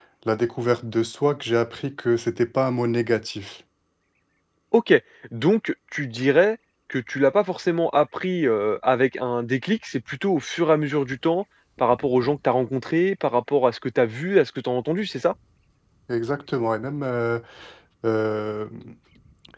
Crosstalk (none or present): none